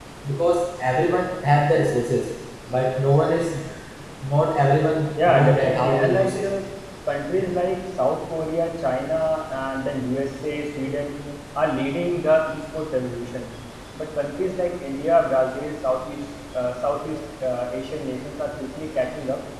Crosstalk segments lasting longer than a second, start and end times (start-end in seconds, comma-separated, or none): 5.3-6.5